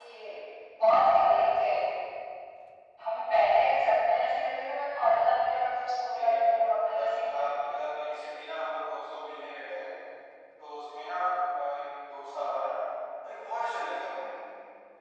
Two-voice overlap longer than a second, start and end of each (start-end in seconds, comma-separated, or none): 6.1-7.9